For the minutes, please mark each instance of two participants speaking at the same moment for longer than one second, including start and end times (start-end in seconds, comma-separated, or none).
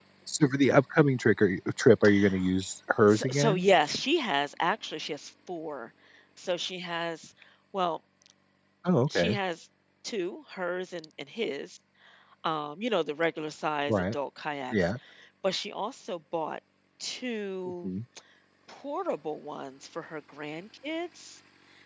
none